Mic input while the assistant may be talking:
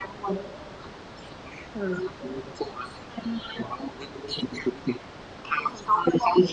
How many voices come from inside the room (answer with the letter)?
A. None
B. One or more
A